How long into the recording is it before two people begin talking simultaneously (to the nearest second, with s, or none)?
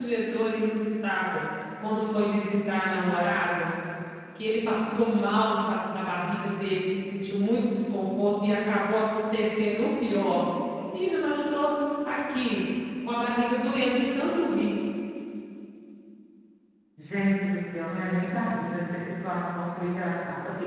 none